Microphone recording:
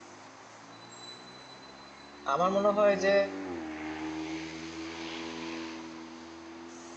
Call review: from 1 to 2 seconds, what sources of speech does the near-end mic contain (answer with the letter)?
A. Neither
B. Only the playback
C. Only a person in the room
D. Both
A